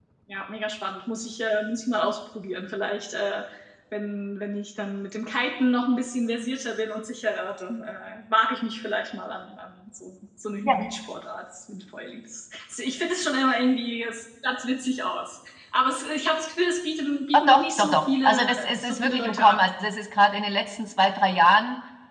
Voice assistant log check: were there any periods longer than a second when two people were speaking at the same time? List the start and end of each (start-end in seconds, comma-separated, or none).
17.3-19.7